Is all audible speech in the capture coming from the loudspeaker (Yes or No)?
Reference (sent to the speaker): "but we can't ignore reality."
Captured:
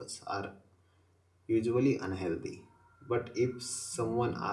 No